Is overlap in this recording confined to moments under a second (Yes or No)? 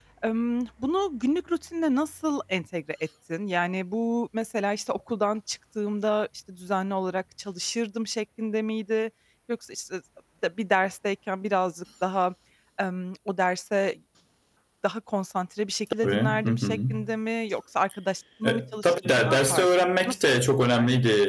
No